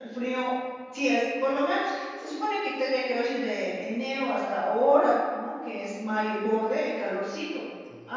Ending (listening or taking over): listening